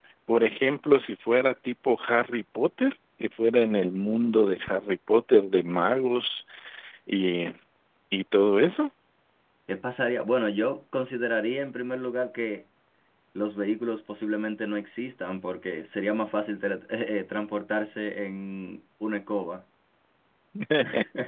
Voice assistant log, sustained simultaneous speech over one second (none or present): none